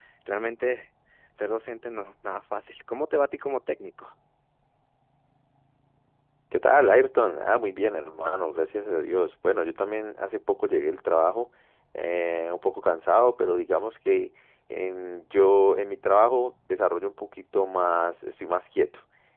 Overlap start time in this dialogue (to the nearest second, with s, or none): none